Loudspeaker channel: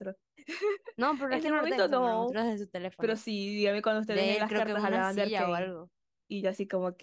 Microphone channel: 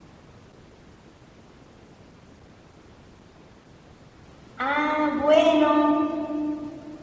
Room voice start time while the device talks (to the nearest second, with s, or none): 5 s